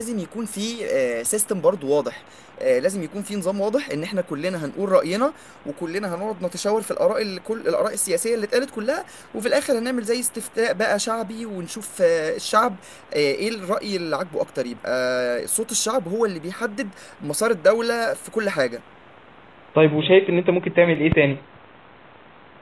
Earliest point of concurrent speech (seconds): none

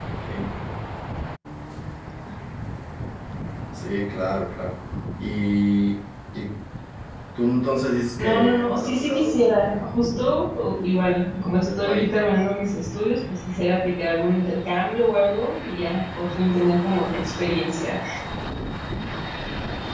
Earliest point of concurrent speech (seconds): 8.2 s

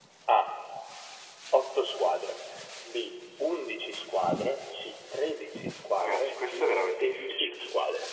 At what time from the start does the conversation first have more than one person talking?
6.0 s

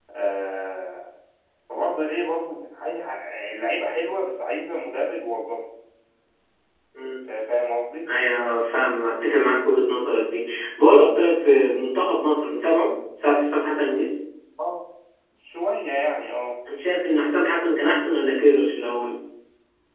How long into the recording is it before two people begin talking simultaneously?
none

